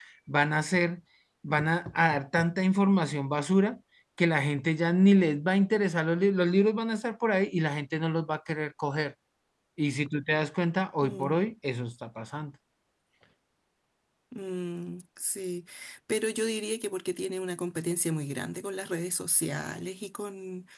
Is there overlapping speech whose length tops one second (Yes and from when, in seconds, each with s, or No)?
No